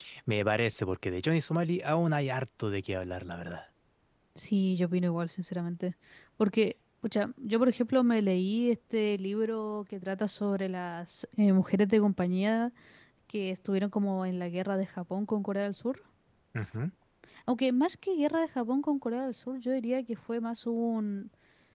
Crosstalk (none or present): none